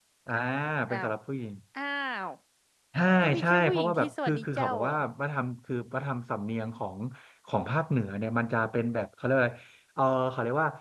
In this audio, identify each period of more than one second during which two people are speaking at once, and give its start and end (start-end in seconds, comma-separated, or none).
3.4-4.9